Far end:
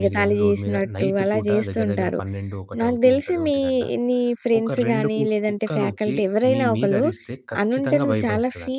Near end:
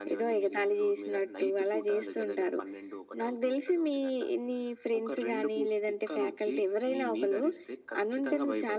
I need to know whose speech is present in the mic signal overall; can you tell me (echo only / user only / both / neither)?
echo only